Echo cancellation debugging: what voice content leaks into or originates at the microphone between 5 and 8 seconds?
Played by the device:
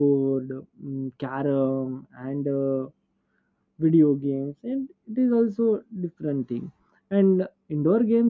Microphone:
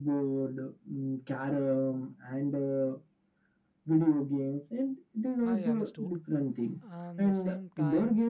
both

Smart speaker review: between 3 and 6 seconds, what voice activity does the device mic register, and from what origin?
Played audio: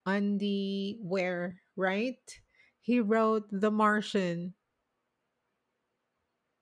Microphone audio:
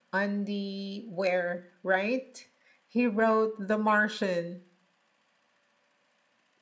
echo only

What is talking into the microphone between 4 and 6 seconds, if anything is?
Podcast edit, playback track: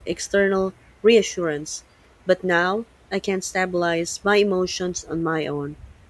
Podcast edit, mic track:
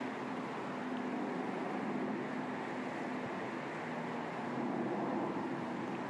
neither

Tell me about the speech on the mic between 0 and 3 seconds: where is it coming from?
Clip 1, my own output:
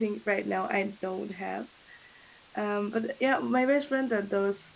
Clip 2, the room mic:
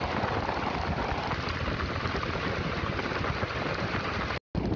neither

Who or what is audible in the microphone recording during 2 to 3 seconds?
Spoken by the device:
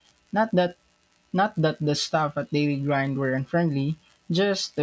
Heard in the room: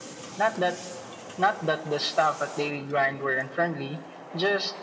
echo only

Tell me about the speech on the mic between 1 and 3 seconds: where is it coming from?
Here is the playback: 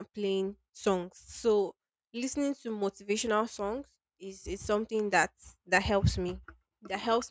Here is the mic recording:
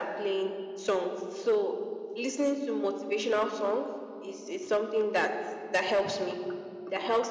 echo only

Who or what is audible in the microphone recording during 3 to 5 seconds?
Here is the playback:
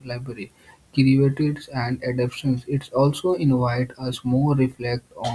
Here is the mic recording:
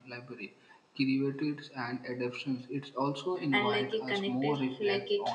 both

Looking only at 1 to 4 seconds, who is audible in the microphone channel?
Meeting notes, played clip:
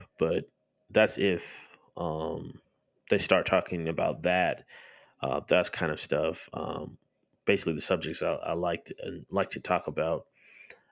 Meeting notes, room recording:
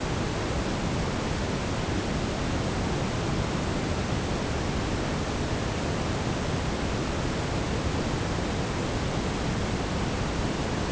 neither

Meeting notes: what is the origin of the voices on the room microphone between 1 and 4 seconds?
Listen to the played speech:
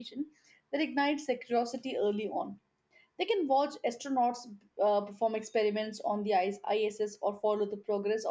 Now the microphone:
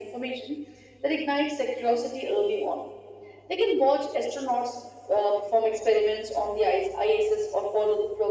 echo only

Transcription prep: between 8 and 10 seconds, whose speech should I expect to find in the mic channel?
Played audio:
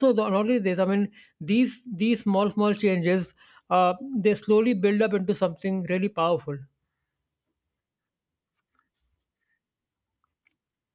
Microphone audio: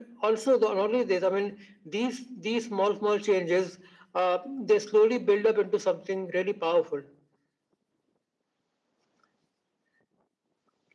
neither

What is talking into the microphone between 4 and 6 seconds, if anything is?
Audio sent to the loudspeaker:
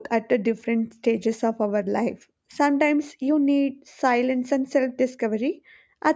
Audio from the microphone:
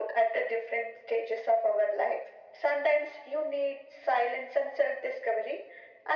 echo only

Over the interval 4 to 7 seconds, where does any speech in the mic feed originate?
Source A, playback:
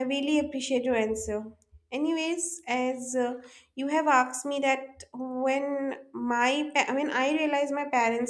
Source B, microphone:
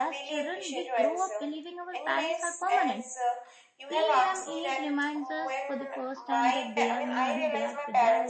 both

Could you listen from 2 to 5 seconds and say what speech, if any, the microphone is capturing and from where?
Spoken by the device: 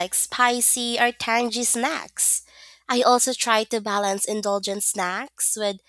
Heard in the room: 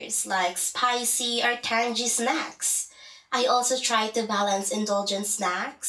echo only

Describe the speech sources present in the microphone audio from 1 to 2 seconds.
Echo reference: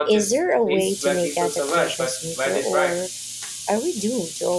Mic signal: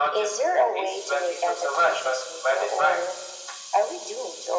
echo only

